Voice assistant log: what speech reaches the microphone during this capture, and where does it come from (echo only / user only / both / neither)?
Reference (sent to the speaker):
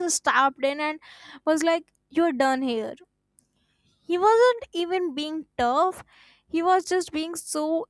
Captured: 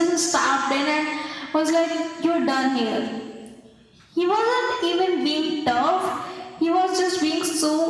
echo only